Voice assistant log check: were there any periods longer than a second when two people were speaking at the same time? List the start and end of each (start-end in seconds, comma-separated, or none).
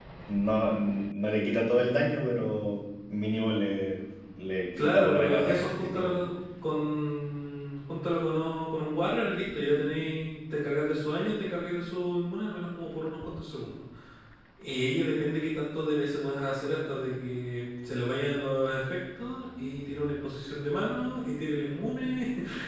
4.8-6.2